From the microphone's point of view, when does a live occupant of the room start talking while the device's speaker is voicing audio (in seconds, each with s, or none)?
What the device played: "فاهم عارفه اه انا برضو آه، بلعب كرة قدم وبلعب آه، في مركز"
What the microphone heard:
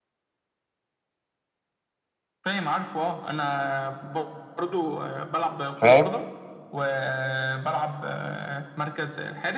5.8 s